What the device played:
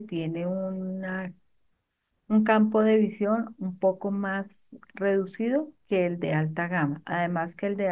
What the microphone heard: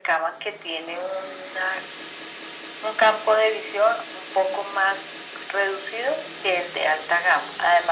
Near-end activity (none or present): none